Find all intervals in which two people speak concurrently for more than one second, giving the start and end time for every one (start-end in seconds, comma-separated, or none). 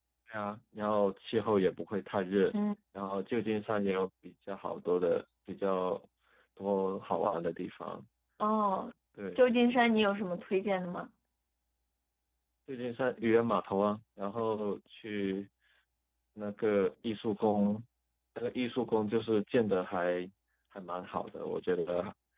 none